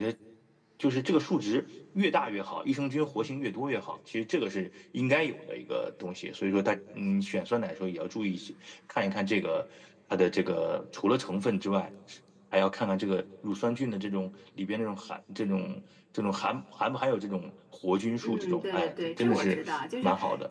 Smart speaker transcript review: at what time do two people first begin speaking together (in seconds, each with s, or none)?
18.2 s